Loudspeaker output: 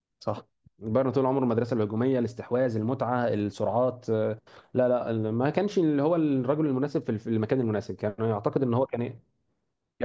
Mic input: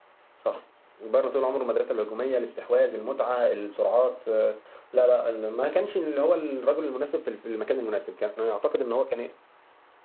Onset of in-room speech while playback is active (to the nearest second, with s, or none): none